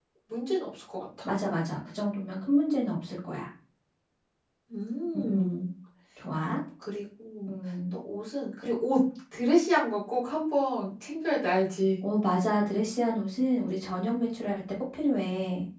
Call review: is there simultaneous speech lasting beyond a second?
No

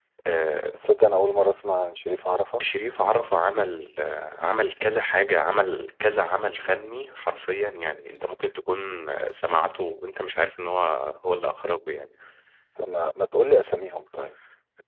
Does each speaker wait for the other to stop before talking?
Yes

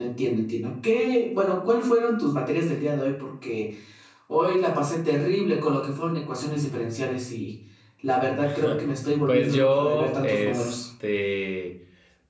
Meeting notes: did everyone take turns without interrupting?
No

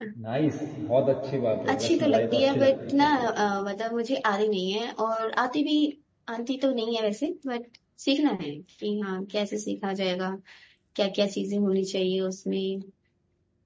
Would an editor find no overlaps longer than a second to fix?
No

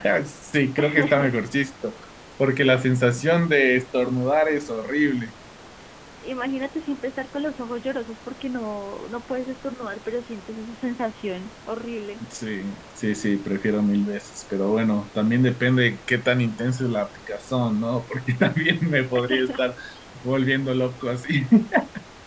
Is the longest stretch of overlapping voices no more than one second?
Yes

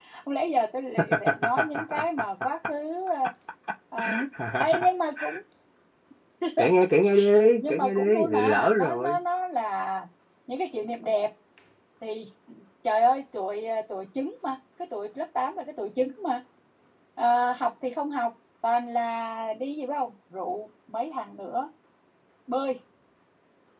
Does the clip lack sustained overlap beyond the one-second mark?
No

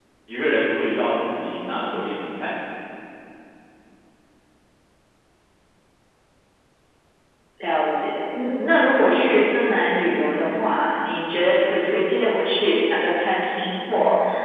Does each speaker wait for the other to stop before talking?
Yes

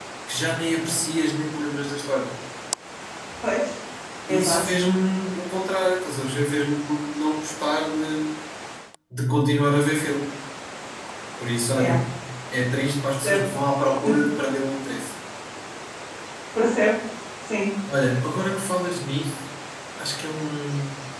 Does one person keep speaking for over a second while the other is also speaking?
No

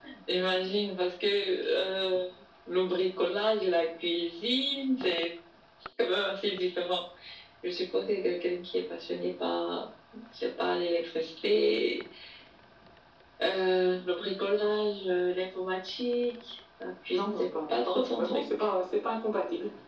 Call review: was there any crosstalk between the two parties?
Yes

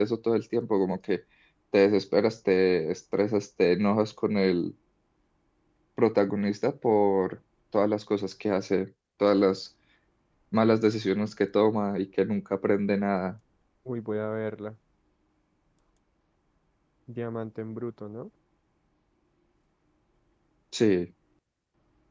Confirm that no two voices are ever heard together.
Yes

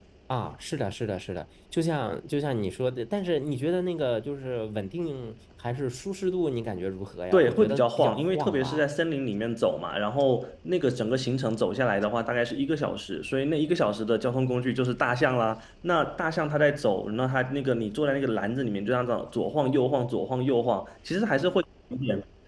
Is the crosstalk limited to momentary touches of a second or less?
No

